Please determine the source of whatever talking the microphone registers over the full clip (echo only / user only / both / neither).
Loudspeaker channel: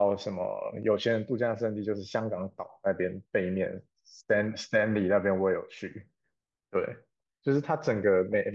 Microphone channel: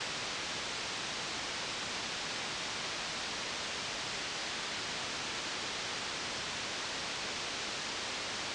neither